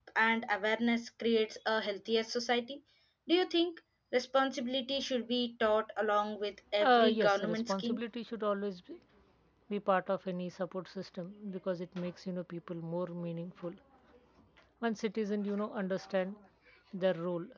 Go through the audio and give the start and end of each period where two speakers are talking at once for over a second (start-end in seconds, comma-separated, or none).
6.8-8.0